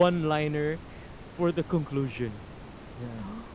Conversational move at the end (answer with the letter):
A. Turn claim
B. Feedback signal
B